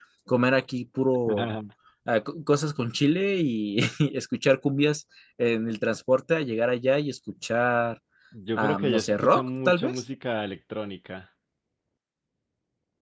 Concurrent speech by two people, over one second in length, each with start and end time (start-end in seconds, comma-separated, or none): 8.6-10.0